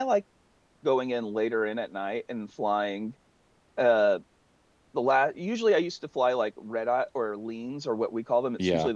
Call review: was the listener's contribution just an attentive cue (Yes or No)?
Yes